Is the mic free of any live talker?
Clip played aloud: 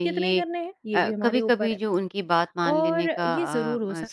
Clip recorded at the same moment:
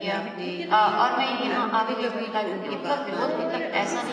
No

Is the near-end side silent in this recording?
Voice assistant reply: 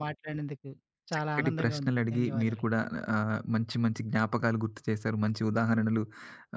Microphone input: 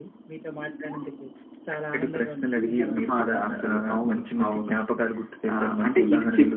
No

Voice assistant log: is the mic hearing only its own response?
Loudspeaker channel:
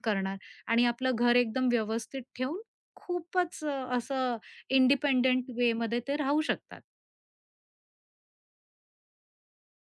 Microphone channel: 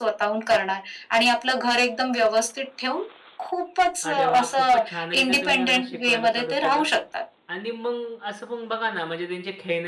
No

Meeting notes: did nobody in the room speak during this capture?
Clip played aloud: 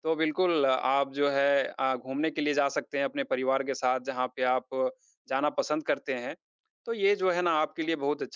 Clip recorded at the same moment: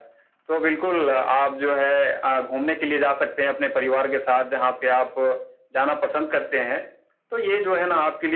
Yes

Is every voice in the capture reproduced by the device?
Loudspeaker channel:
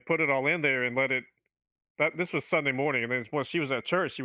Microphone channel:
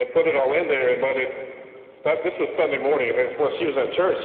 Yes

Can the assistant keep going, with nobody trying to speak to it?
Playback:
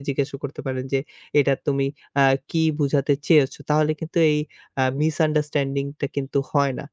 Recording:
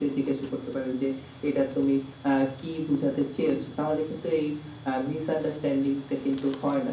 Yes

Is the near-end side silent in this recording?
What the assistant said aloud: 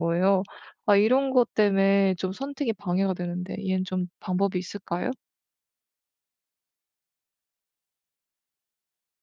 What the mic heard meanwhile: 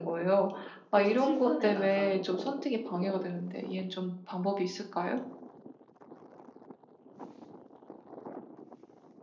No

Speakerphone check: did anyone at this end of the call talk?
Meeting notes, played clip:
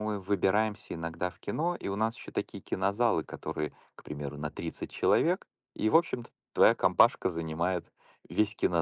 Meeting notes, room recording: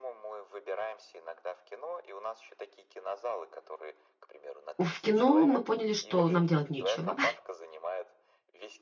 Yes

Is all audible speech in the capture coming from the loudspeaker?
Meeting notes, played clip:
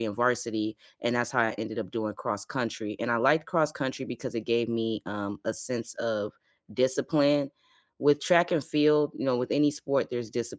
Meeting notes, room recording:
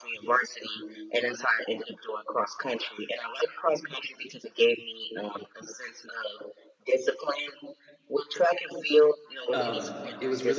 No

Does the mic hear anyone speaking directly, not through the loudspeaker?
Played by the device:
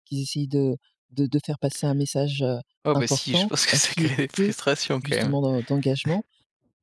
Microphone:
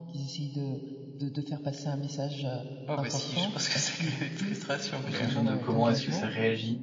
Yes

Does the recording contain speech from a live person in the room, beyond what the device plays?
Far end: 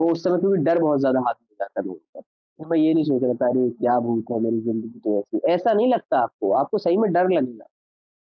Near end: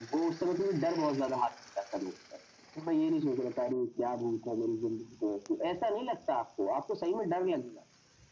No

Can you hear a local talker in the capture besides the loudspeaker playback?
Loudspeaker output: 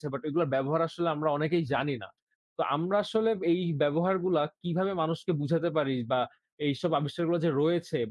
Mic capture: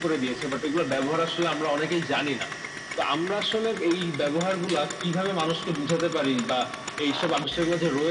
No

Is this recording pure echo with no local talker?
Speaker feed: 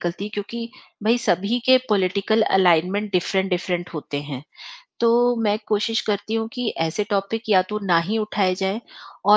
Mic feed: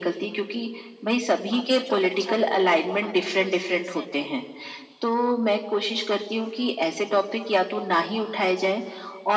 No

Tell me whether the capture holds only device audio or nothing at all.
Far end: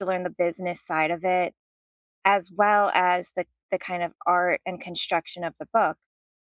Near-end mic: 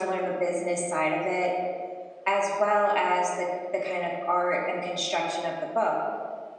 Yes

